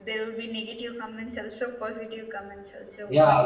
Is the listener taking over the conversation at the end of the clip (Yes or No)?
Yes